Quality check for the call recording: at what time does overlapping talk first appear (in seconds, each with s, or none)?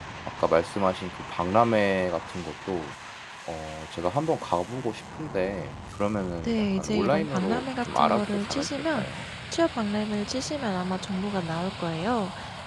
6.4 s